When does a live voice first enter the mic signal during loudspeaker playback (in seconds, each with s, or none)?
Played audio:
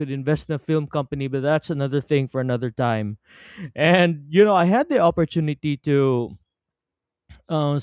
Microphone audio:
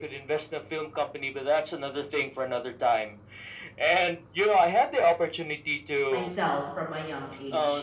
6.1 s